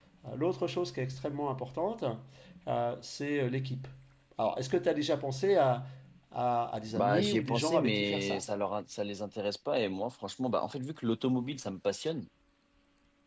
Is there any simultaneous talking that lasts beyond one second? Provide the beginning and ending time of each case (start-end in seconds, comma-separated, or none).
6.9-8.4